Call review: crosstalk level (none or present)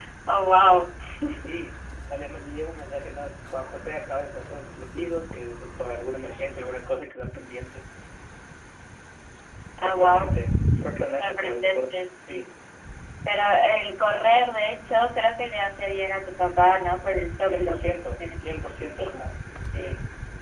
present